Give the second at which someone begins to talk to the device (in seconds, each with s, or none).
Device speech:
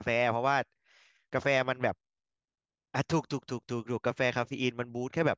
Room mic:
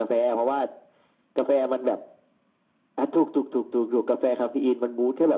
none